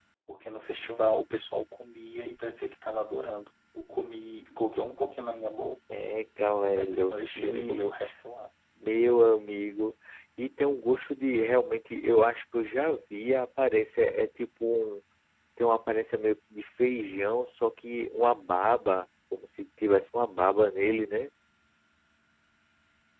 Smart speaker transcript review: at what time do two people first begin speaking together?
6.5 s

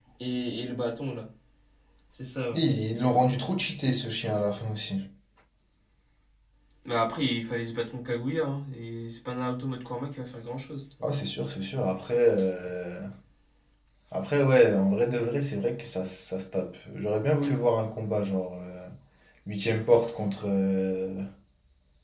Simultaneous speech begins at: none

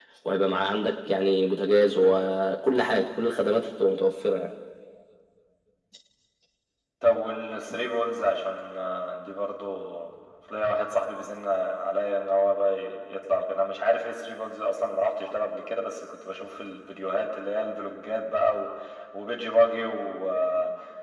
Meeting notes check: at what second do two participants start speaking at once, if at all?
none

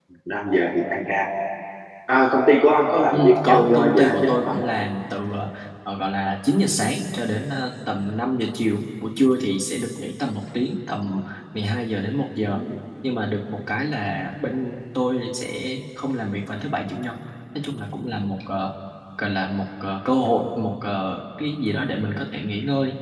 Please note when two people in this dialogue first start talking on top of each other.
3.1 s

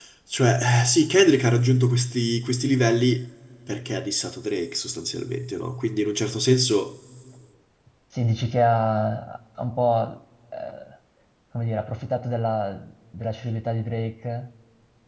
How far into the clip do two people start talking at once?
none

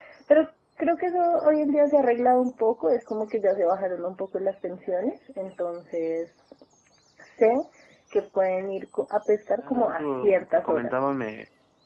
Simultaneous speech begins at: 9.6 s

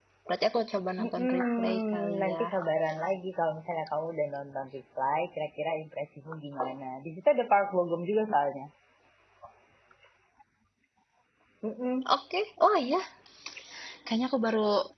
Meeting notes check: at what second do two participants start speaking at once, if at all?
1.0 s

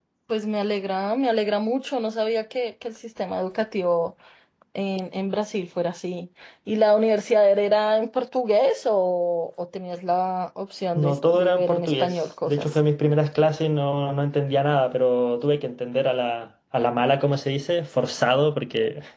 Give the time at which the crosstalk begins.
10.9 s

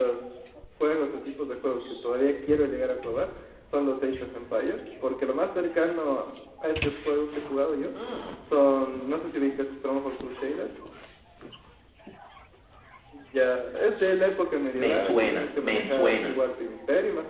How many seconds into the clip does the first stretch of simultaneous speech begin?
14.7 s

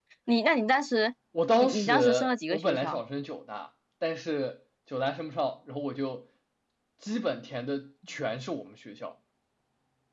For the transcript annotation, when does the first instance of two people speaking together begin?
1.6 s

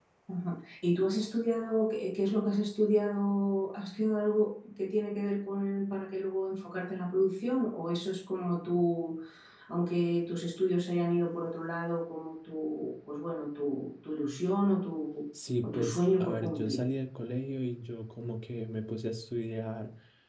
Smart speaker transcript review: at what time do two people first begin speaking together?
15.6 s

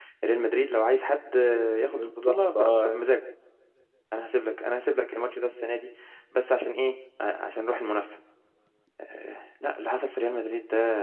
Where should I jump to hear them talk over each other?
1.8 s

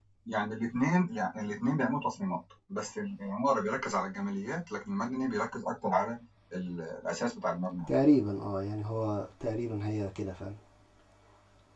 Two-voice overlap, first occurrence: none

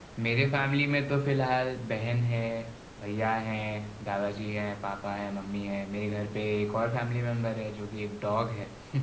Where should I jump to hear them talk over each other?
none

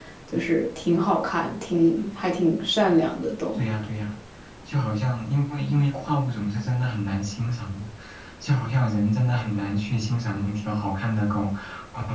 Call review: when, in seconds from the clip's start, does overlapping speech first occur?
none

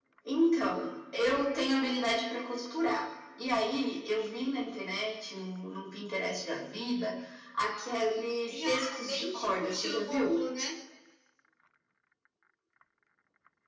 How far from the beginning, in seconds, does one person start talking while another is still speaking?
8.5 s

